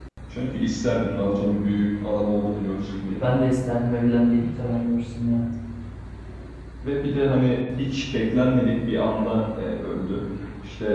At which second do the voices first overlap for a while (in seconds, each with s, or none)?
none